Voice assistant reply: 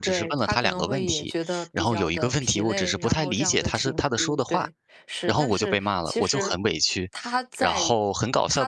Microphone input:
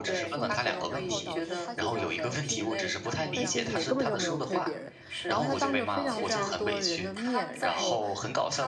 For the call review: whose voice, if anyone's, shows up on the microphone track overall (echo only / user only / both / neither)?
both